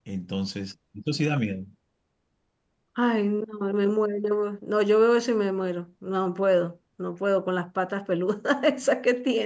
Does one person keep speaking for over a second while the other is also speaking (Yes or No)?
No